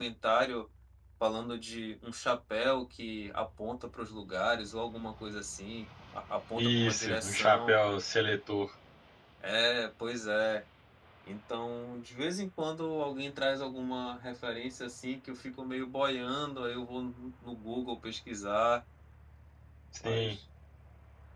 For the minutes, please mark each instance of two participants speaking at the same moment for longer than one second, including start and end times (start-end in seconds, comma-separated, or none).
6.5-7.8